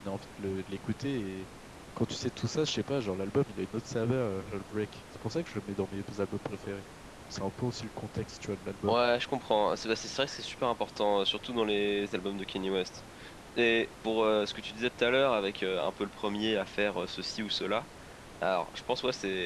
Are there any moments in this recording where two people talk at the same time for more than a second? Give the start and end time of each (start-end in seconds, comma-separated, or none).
none